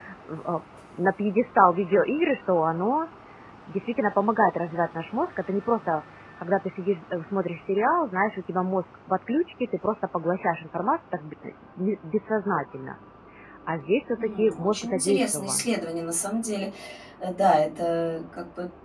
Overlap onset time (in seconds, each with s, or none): 14.2 s